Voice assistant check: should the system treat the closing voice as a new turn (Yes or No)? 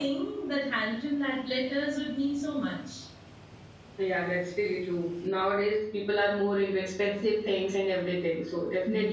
No